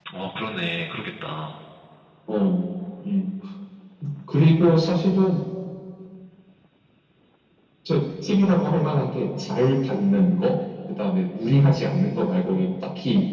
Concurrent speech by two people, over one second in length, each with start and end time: none

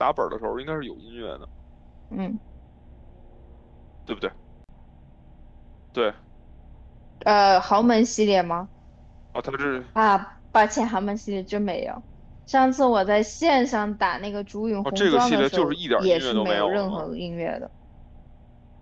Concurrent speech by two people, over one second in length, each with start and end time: 14.8-17.0

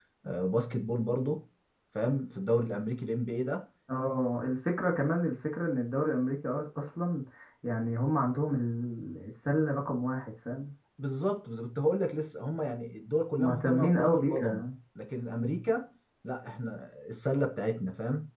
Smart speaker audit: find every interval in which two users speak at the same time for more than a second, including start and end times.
13.3-14.7

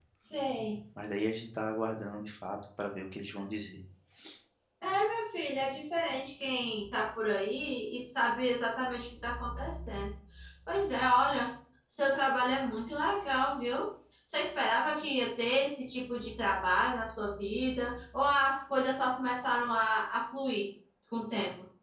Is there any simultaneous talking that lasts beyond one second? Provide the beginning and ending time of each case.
none

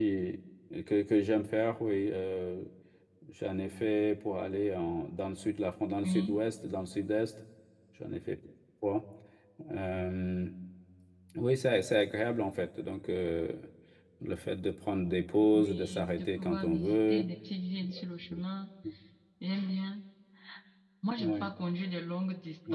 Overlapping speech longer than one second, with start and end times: 15.5-17.2

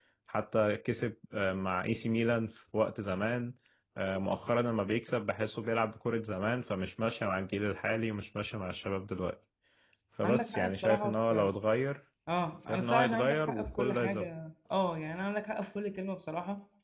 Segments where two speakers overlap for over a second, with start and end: 10.2-11.5, 12.7-14.3

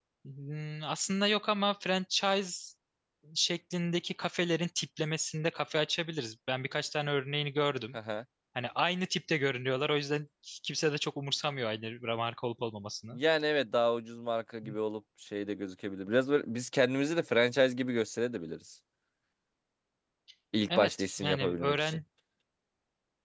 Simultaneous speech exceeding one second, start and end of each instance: 20.8-22.0

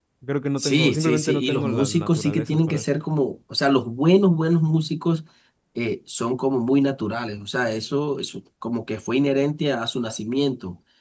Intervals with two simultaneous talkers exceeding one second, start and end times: 0.6-2.9

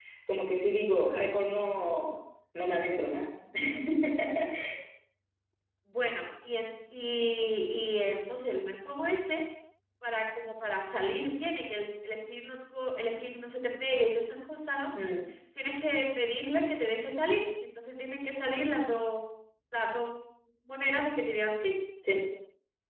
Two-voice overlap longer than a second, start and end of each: none

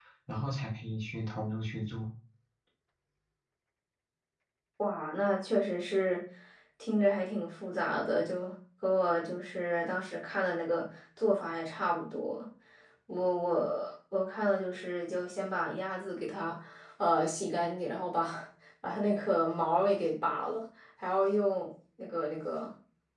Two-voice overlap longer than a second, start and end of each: none

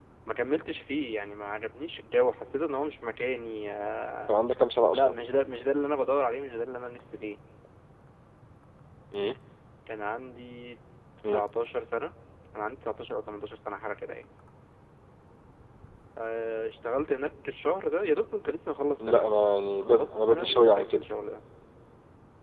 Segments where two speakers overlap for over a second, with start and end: 19.8-21.1

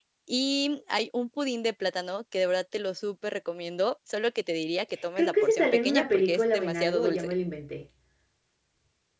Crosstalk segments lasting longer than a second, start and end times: 5.2-7.3

